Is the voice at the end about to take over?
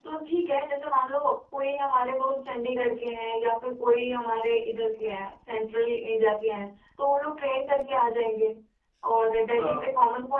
No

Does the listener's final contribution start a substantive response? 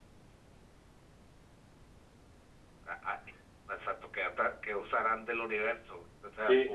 Yes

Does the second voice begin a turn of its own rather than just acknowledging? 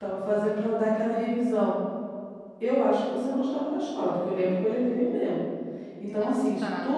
No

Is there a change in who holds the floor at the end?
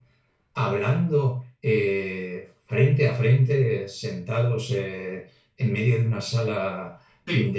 No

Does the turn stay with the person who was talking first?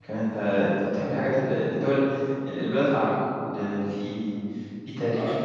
No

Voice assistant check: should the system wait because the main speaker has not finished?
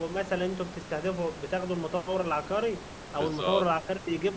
Yes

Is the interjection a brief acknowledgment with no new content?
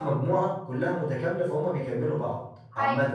No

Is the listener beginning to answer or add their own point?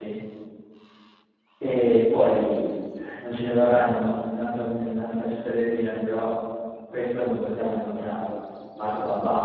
Yes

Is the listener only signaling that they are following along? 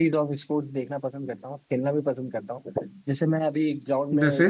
Yes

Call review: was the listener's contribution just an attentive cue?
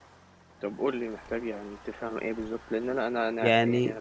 Yes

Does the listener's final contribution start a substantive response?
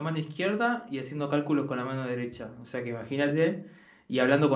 No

